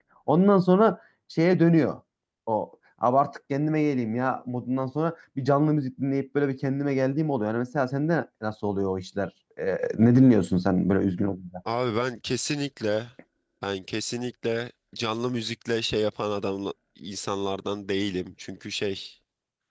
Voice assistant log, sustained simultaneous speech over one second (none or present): none